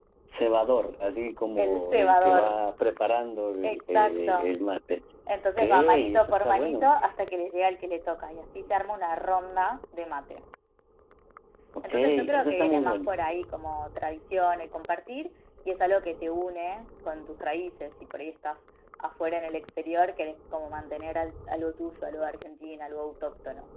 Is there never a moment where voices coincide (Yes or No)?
No